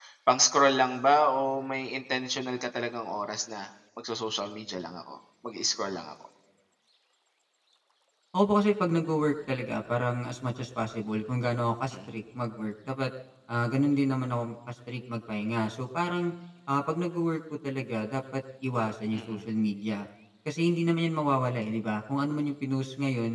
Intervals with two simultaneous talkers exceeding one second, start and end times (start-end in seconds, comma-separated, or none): none